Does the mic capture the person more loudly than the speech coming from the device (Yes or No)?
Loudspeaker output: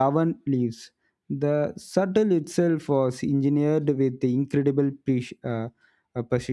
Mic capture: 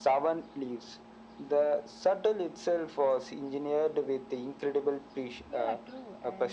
No